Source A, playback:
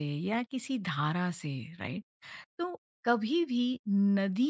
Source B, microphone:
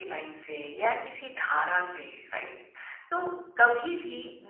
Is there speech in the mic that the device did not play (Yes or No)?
No